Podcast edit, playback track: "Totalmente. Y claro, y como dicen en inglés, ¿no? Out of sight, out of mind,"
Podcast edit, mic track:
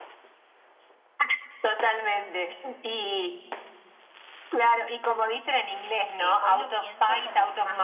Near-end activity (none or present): present